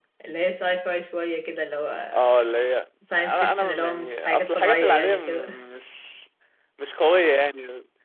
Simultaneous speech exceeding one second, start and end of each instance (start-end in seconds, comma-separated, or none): 3.2-5.5